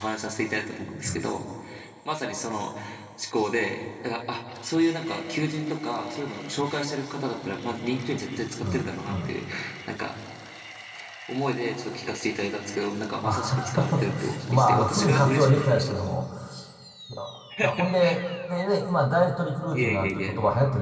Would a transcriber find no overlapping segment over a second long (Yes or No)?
No